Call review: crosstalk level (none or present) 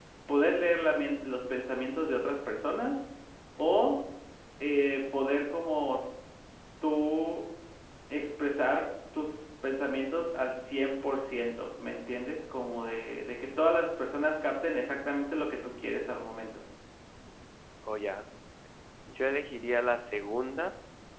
none